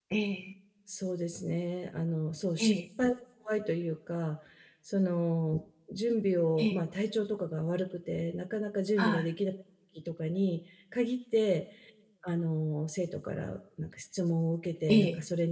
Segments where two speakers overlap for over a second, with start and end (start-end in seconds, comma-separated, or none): none